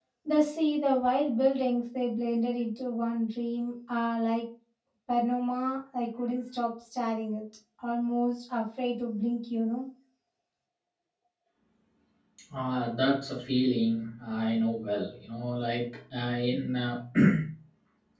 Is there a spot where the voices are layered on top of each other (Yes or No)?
No